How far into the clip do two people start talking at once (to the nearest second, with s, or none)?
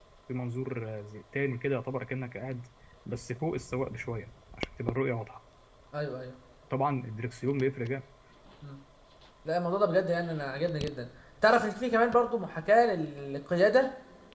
none